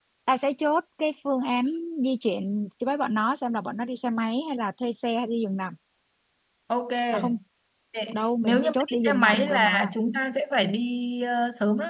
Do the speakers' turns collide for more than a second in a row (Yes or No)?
Yes